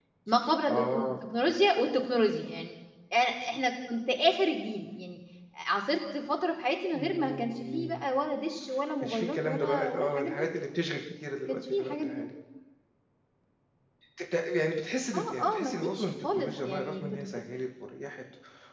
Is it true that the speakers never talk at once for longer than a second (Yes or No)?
No